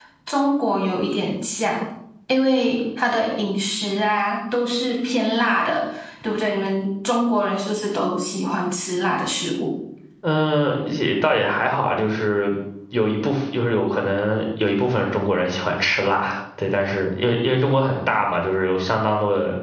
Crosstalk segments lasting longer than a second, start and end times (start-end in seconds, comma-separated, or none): none